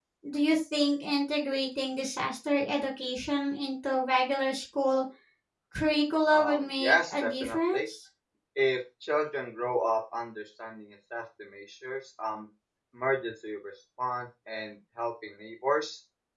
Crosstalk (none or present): present